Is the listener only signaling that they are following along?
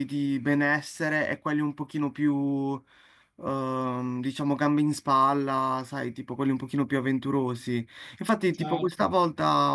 Yes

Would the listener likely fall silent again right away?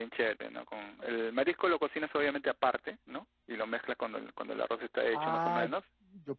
No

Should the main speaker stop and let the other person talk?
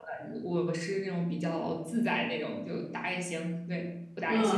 Yes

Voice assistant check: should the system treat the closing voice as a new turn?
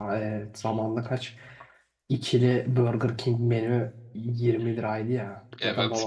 No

